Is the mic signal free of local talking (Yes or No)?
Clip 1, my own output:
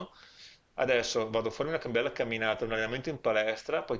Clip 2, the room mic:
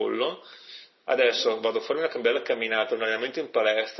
No